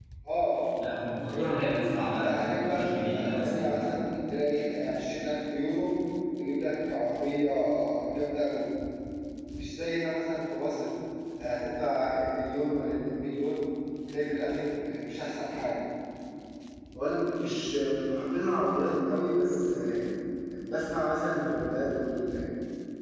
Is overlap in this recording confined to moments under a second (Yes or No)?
No